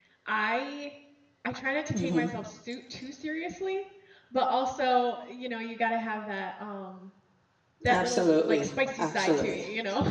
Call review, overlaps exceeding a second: present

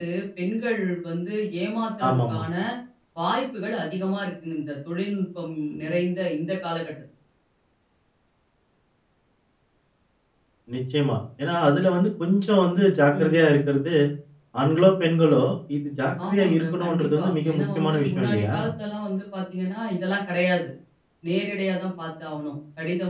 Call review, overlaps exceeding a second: present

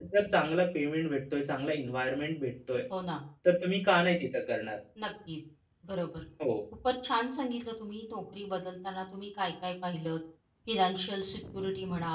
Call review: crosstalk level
none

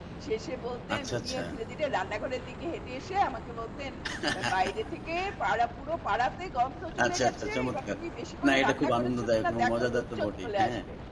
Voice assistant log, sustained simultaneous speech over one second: present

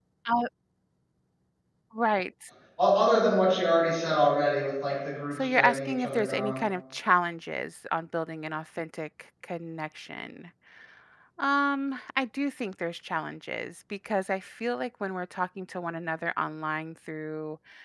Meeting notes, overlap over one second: present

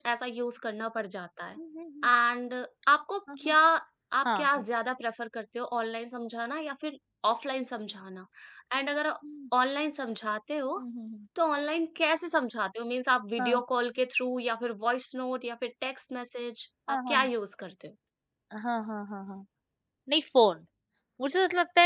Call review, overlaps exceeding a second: none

